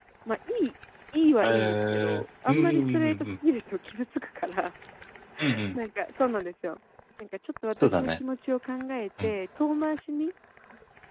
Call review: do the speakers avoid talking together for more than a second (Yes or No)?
No